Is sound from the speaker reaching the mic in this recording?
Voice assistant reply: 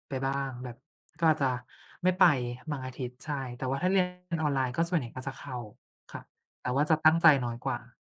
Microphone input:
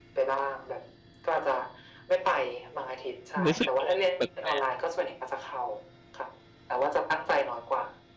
Yes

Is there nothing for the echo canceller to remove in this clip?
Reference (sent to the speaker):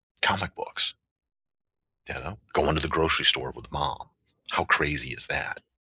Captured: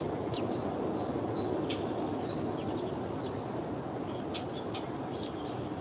Yes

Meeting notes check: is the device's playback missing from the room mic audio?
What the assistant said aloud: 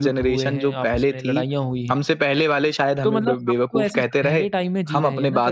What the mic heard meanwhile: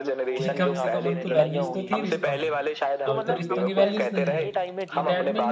No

